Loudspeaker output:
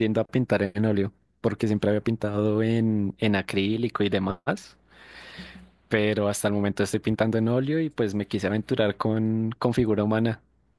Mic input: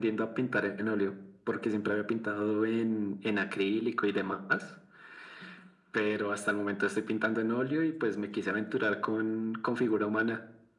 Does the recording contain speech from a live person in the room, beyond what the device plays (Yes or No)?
No